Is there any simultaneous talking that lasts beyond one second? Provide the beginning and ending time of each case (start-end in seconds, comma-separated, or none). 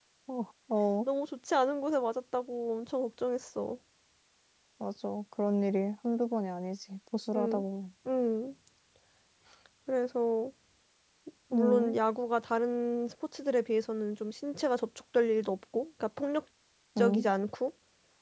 none